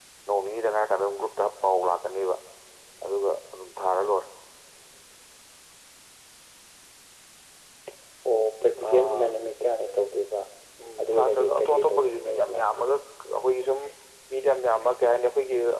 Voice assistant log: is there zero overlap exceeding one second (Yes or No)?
No